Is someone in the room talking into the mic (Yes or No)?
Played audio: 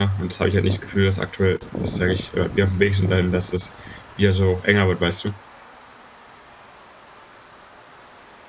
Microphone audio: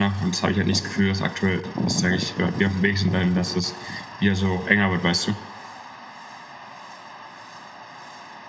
No